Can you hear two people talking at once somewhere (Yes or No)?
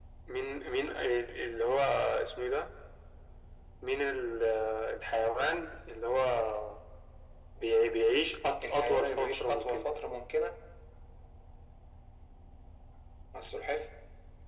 Yes